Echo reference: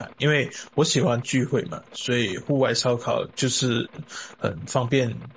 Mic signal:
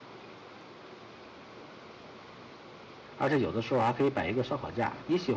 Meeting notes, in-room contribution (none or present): present